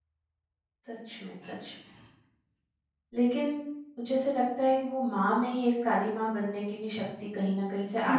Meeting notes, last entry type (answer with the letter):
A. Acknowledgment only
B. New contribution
A